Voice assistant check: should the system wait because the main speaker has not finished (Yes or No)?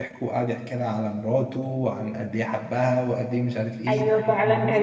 No